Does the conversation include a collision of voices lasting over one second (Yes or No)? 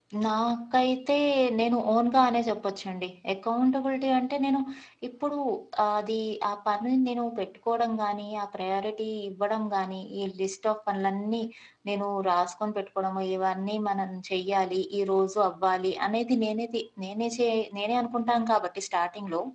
No